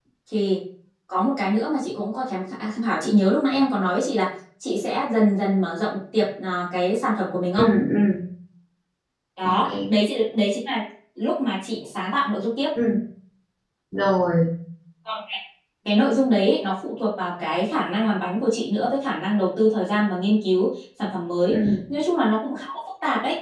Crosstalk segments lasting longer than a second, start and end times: none

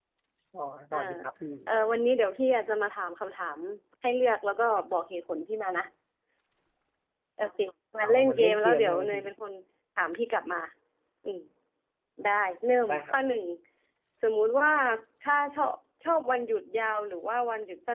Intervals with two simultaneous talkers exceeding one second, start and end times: 8.0-9.2

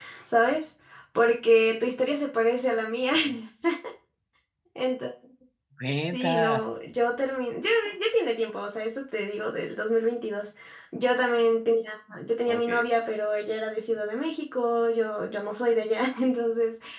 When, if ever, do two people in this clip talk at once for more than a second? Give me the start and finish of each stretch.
none

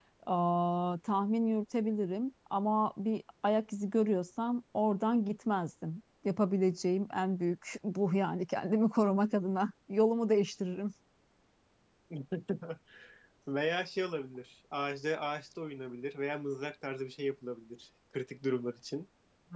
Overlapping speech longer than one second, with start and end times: none

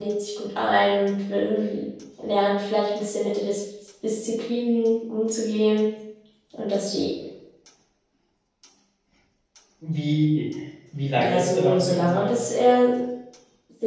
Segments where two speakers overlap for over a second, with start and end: 11.2-12.4

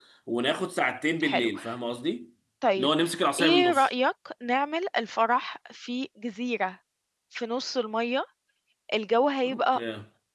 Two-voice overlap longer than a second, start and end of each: none

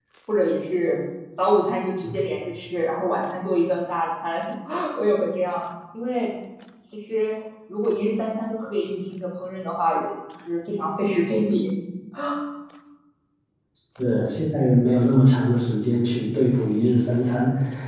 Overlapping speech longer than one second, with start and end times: none

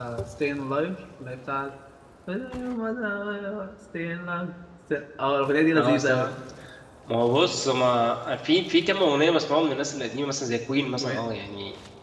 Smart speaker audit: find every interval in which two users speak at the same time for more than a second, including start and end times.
none

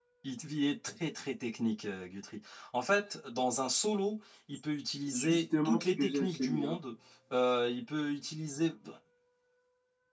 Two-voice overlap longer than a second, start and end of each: 5.1-6.8

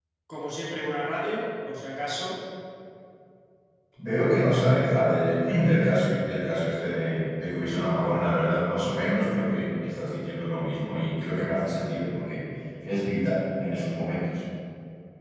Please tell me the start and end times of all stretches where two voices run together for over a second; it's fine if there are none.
none

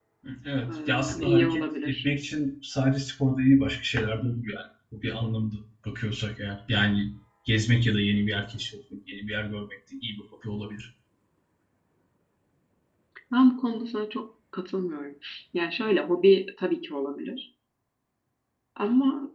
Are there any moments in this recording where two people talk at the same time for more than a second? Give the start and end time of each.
0.7-2.0

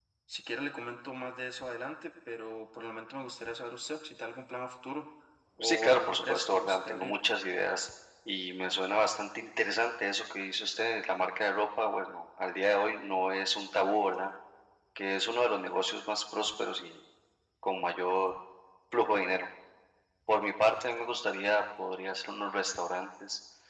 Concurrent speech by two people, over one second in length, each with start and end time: 5.6-7.1

